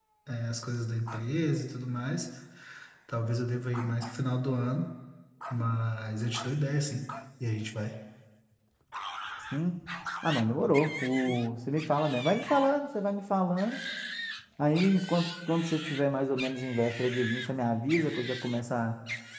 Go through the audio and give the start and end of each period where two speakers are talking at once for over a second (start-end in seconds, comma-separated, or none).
none